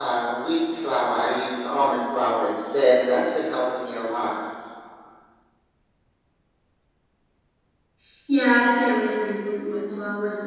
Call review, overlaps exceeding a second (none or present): none